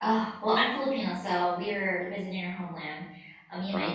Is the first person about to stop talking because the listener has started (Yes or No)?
No